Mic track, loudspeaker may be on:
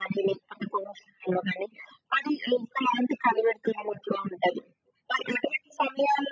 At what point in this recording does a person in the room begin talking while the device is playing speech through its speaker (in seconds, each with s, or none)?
none